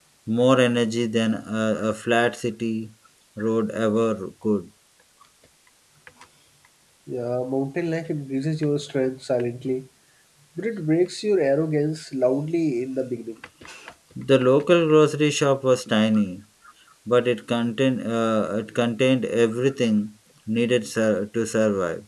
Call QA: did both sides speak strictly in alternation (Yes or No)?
Yes